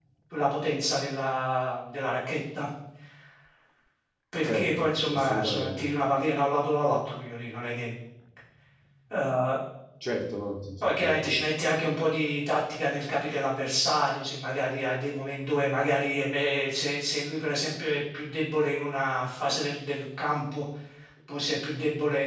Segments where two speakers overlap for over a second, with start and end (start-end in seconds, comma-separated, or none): 4.5-5.8